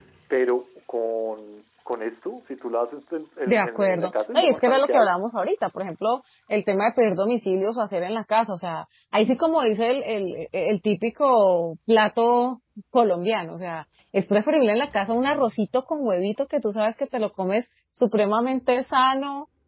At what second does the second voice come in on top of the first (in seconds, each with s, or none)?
3.5 s